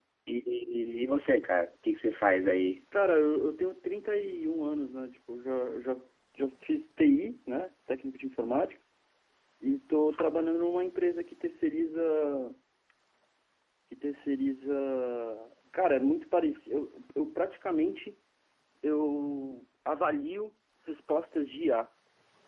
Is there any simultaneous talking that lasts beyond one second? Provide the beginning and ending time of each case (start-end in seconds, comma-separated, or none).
none